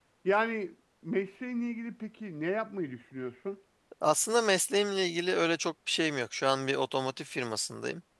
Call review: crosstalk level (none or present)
none